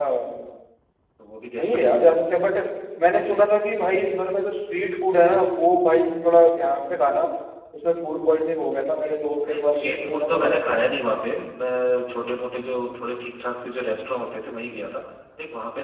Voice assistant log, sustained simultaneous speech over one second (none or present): present